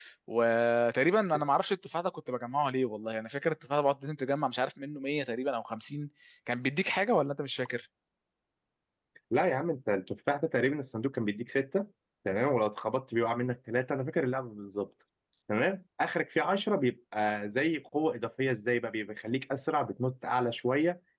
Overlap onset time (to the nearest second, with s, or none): none